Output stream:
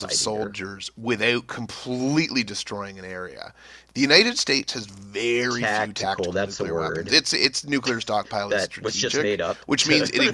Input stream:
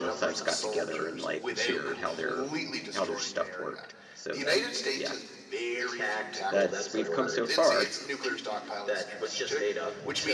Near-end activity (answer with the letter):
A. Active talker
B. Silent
A